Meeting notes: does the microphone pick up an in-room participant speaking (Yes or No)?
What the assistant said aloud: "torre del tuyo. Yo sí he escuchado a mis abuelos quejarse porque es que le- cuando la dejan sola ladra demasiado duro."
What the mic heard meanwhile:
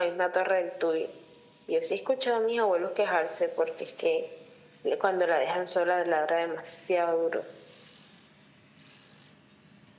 No